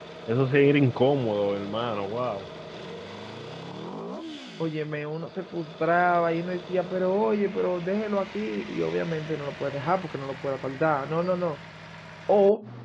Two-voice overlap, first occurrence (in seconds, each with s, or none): none